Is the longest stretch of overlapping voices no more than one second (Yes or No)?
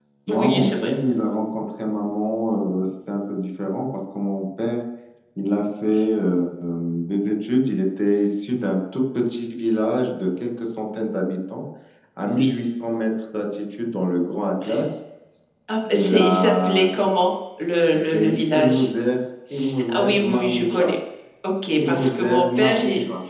No